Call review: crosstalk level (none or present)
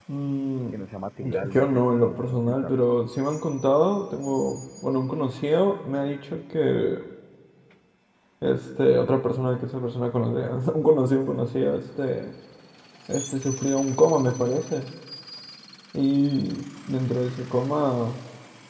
present